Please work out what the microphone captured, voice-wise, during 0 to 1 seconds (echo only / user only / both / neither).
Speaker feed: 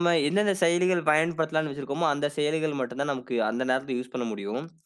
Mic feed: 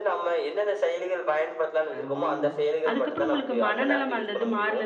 echo only